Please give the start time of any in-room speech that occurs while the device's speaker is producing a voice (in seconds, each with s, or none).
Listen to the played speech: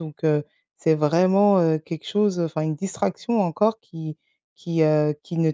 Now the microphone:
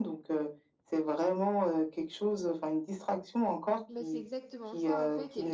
3.9 s